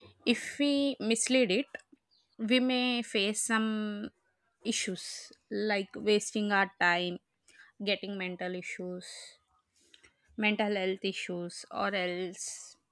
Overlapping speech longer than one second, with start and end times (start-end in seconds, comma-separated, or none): none